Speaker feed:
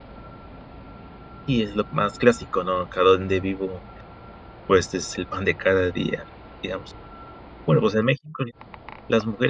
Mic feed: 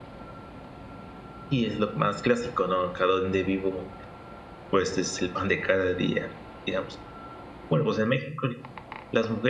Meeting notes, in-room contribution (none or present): none